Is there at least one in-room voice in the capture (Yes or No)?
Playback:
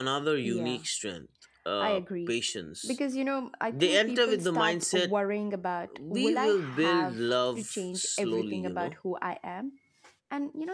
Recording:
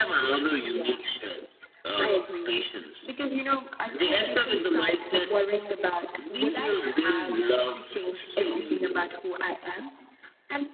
No